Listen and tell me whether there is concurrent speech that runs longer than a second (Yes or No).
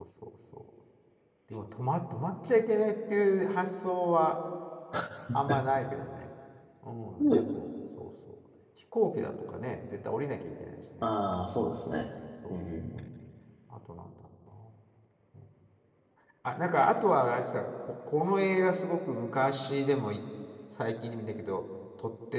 No